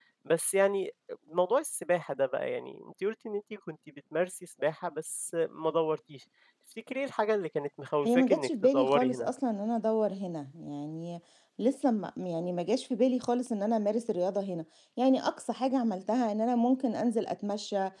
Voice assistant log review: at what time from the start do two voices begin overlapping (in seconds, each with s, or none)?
8.1 s